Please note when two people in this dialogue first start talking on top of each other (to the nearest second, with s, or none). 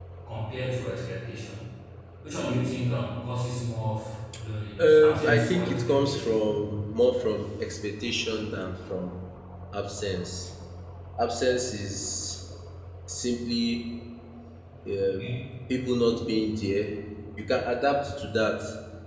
5 s